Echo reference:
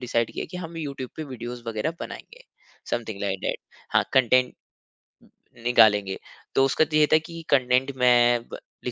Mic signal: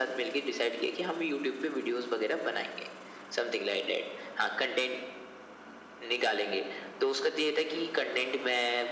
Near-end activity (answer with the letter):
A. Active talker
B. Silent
B